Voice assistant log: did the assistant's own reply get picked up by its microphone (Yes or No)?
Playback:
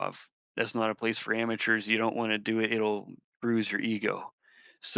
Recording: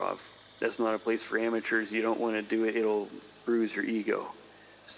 Yes